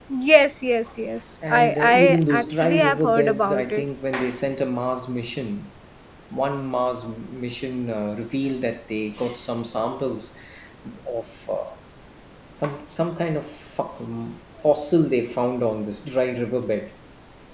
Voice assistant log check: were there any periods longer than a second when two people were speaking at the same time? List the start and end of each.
1.5-3.8

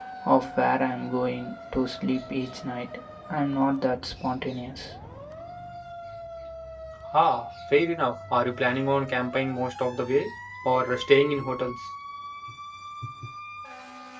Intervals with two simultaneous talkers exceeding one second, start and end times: none

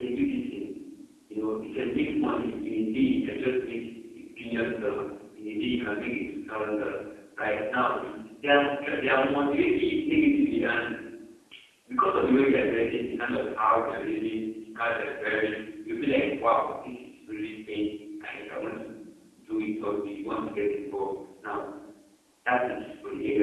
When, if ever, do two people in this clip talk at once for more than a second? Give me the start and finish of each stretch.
none

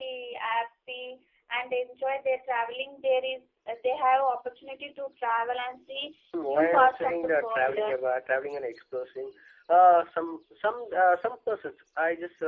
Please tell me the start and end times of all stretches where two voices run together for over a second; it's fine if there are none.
6.4-7.8

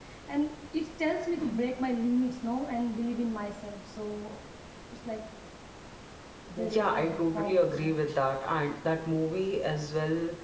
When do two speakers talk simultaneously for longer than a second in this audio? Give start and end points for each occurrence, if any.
6.6-8.0

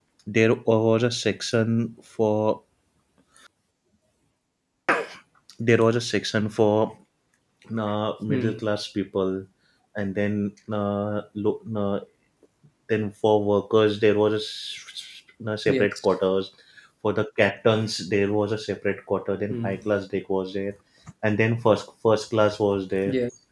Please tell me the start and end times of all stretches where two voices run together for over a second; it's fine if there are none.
none

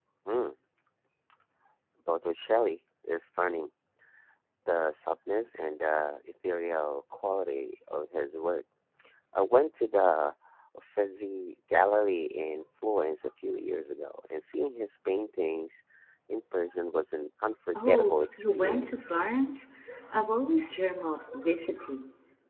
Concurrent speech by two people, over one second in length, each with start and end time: 17.8-19.1

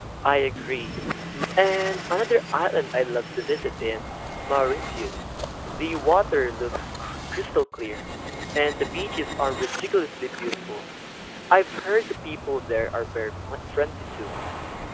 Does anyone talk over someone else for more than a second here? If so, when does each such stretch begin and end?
none

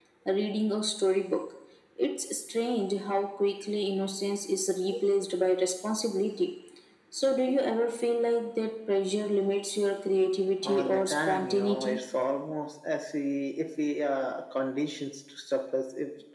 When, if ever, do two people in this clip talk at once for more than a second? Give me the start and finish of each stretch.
10.6-12.0

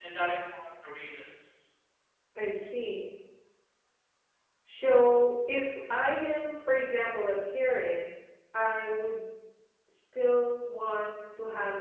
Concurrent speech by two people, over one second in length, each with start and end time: none

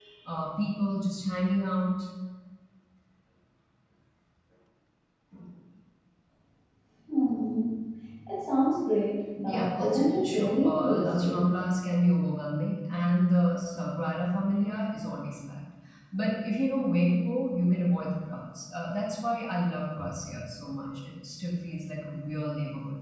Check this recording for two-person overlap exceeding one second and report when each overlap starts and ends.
9.5-11.4

